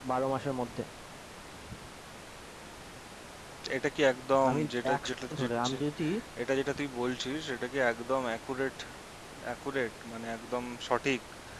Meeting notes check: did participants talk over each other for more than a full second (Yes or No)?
Yes